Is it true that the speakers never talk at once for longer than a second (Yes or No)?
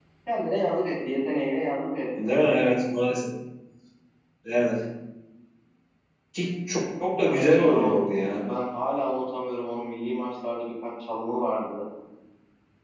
No